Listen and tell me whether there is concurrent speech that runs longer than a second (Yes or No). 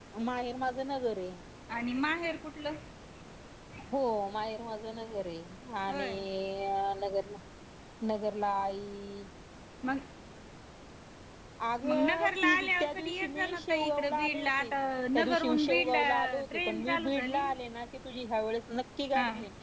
Yes